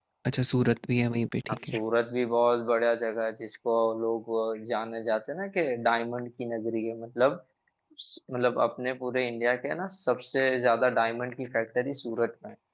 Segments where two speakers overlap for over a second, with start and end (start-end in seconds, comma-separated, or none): none